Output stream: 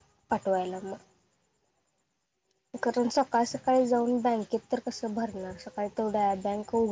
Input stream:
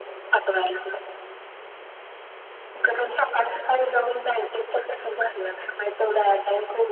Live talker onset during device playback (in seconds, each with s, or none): none